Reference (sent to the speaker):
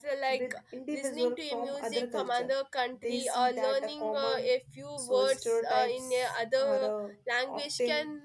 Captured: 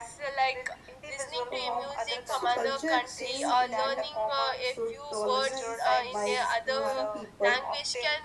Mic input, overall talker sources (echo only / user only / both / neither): both